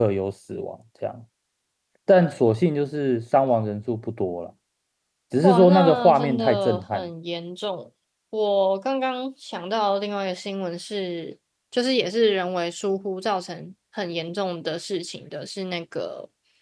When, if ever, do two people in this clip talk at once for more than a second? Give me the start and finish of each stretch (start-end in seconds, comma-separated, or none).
5.4-7.0